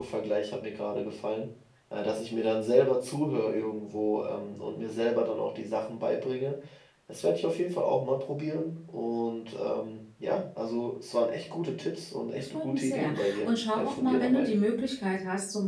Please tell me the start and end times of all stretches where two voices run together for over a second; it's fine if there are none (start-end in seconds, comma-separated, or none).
12.3-14.5